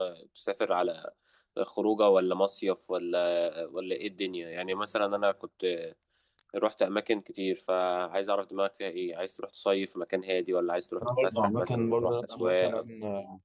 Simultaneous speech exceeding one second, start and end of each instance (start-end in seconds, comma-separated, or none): 11.2-12.8